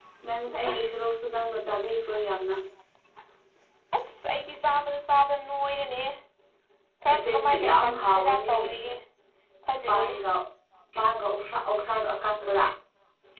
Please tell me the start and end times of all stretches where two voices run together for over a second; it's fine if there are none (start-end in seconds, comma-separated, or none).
7.1-8.5